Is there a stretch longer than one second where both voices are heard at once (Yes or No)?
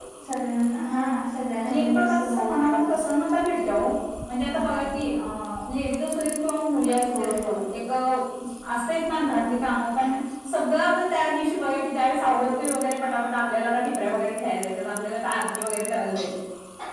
Yes